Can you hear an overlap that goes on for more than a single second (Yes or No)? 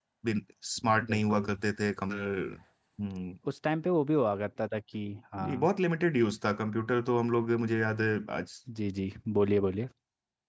No